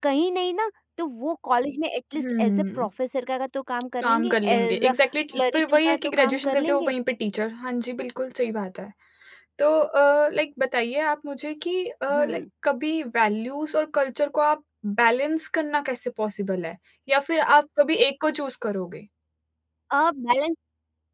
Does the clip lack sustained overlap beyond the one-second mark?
No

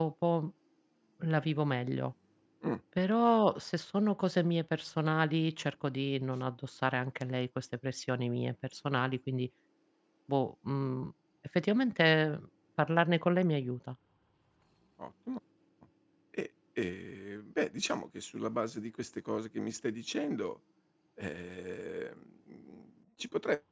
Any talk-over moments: No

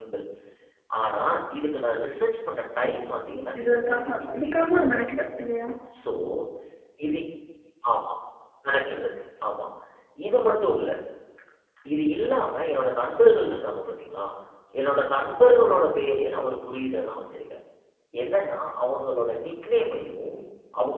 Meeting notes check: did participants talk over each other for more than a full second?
Yes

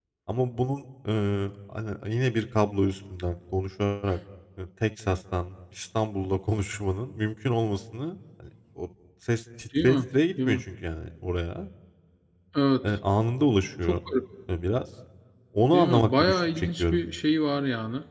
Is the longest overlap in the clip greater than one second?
Yes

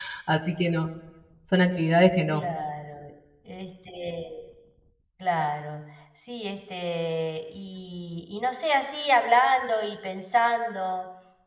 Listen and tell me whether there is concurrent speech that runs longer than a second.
No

